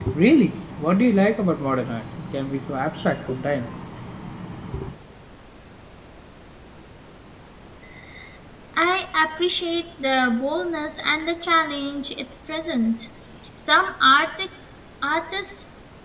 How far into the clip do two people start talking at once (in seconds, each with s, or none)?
none